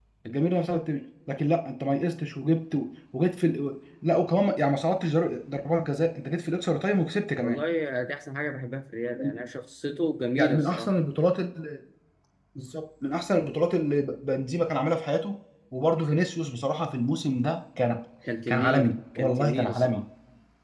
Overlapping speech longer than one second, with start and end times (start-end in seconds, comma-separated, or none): 18.5-20.0